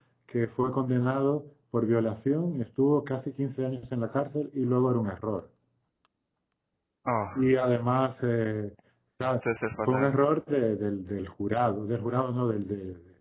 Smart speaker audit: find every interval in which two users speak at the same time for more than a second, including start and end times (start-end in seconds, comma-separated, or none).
none